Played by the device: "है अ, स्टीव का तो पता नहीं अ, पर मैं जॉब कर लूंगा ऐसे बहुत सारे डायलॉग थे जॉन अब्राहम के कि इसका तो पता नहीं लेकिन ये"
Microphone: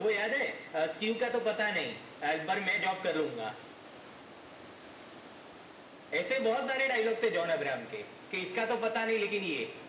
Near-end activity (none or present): none